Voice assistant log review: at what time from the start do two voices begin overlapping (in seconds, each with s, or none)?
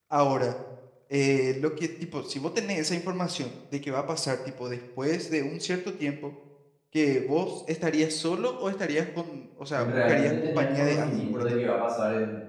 9.8 s